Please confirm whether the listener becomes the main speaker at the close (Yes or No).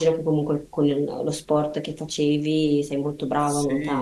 Yes